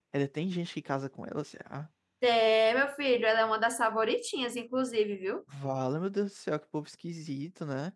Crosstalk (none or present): none